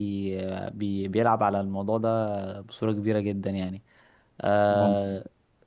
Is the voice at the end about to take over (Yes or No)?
No